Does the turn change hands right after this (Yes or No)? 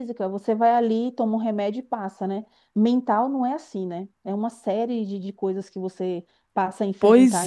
Yes